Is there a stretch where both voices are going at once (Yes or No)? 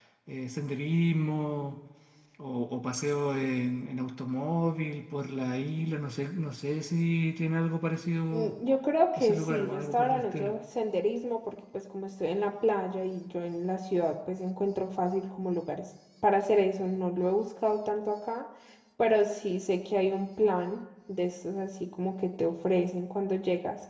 Yes